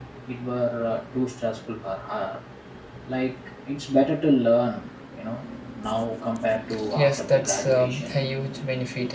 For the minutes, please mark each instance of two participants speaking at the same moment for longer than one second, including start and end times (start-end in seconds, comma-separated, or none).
6.9-8.2